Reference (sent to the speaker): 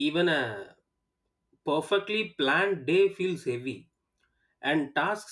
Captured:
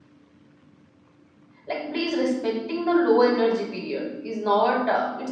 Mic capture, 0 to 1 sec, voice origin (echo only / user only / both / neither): neither